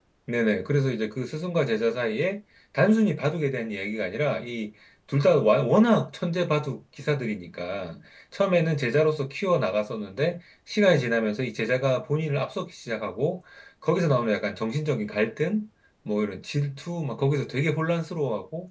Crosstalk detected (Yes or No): No